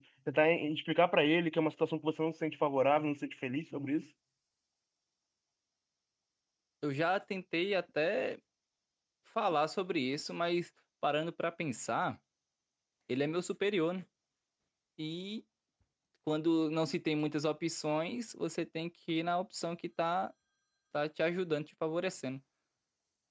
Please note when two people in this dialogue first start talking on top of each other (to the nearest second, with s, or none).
none